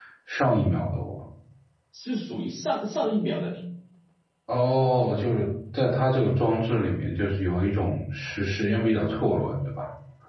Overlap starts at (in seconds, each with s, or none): none